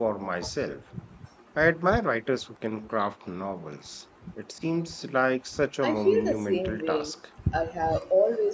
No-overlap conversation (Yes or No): No